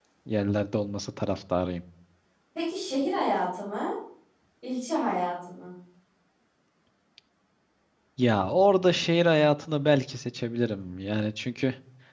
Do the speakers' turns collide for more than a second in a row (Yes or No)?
No